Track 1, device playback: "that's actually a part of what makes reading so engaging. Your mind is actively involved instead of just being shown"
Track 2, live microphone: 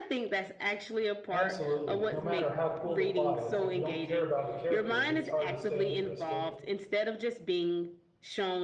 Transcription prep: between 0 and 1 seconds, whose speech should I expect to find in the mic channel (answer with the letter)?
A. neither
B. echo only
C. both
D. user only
B